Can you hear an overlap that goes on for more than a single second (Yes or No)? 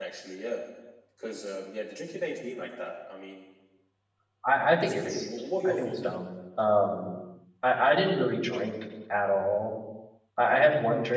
No